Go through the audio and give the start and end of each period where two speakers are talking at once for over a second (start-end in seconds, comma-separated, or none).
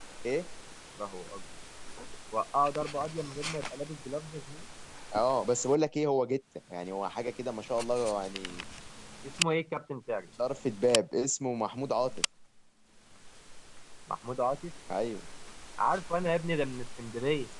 none